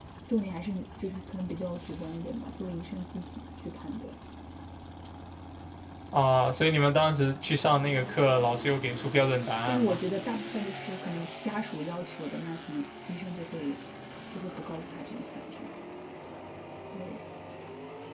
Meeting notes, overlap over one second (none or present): none